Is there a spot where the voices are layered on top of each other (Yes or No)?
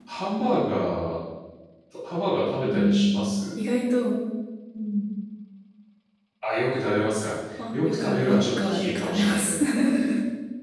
Yes